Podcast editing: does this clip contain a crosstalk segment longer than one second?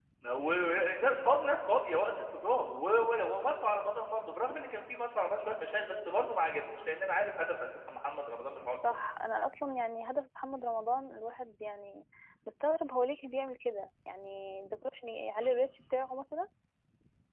No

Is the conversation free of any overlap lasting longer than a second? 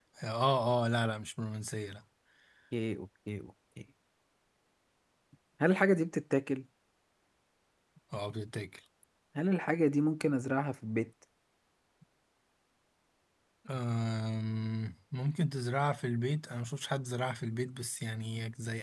Yes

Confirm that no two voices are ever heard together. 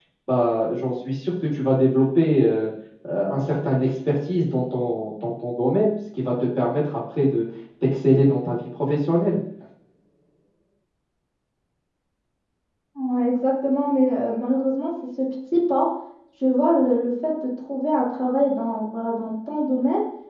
Yes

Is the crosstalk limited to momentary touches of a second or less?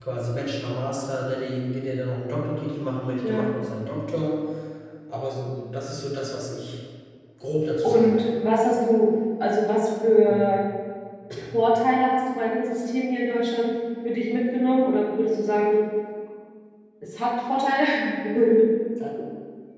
Yes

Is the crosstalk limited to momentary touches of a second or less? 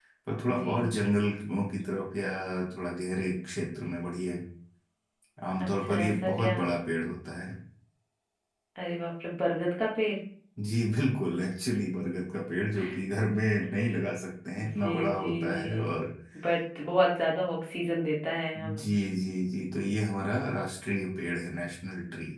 No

